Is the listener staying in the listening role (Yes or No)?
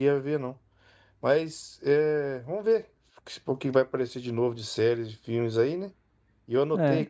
Yes